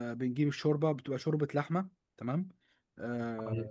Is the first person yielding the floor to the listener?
Yes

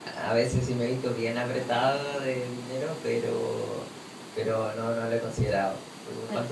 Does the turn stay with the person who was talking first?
No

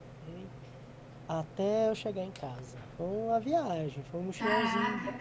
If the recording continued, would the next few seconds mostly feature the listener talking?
Yes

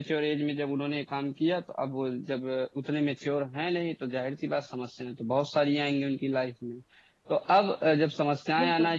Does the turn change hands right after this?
No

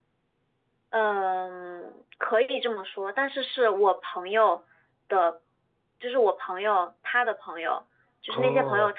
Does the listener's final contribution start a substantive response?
No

